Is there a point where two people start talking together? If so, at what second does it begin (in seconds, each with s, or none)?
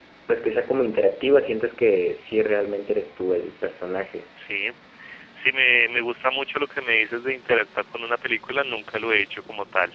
none